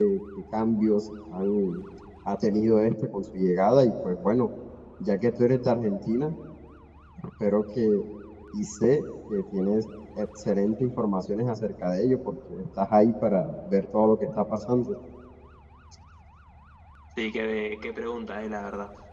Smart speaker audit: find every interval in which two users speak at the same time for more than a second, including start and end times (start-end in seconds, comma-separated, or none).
none